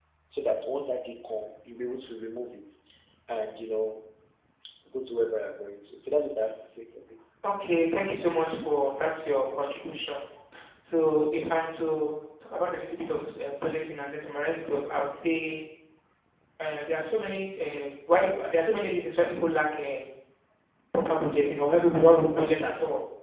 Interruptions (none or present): none